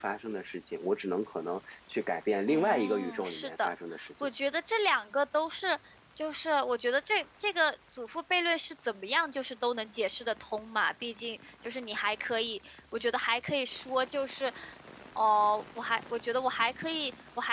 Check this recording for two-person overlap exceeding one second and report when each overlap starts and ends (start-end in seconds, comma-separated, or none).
2.5-3.7